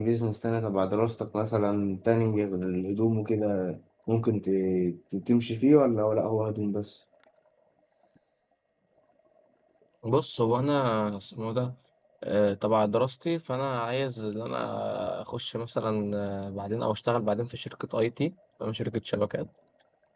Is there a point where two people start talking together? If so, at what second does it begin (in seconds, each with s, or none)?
none